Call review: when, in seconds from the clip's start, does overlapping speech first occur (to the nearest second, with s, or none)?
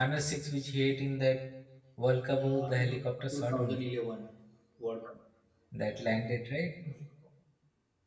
2 s